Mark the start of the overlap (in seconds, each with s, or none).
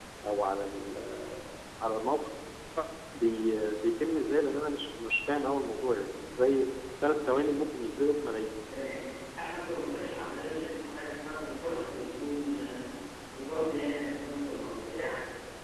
none